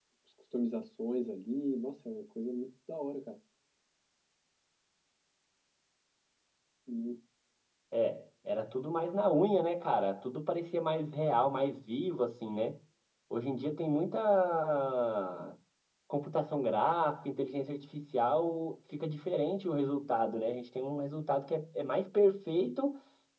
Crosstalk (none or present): none